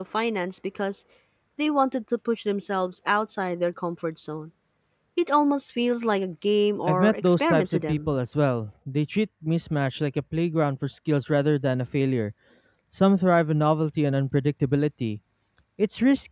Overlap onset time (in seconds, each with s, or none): 6.9 s